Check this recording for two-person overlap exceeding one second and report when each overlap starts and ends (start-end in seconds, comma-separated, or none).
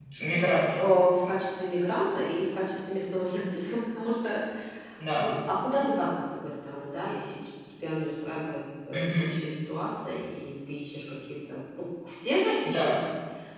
none